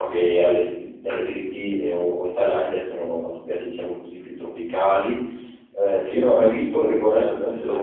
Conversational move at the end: listening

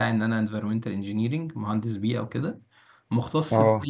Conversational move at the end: listening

